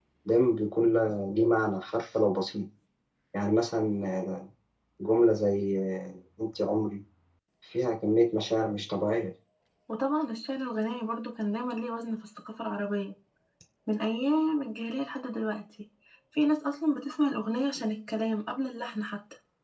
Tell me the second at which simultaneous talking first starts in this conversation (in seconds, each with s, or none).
none